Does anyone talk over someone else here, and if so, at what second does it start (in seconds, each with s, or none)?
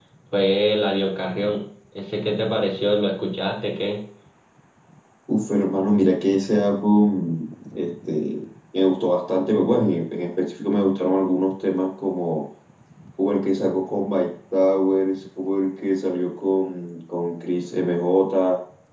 none